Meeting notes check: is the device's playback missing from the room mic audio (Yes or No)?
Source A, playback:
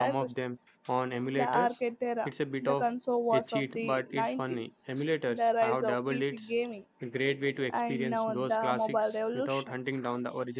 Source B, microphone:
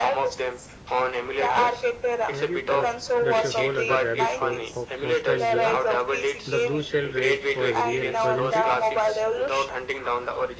No